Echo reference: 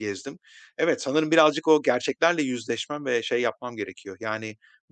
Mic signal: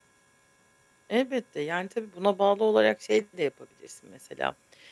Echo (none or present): none